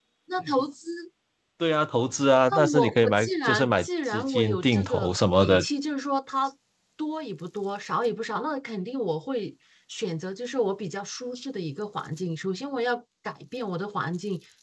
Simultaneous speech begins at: 2.5 s

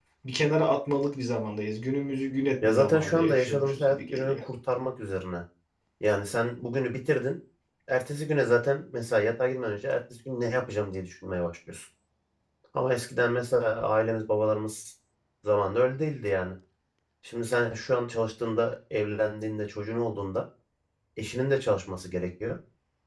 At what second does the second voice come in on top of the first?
2.6 s

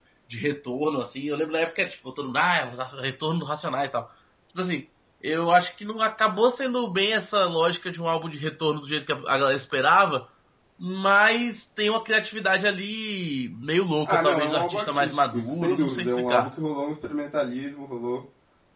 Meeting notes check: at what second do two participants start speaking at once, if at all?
14.1 s

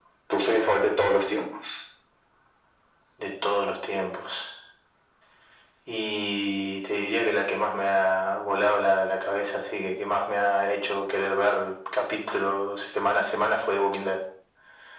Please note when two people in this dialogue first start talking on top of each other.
none

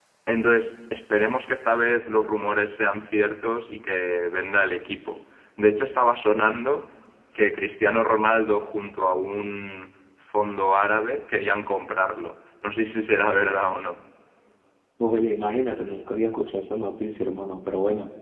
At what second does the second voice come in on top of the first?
none

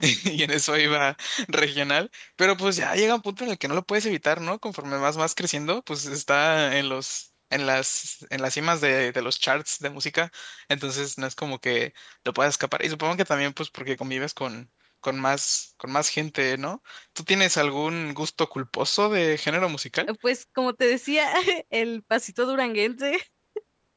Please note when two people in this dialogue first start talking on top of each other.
none

